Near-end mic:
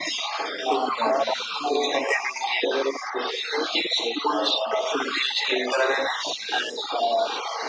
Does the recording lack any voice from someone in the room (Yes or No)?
No